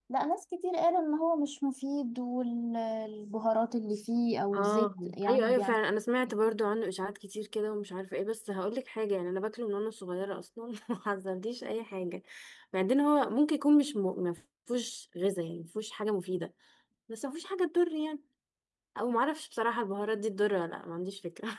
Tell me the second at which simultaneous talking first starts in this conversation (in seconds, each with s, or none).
4.5 s